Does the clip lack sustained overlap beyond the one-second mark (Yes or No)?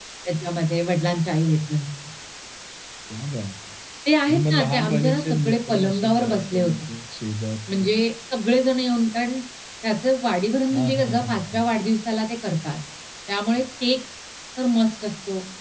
No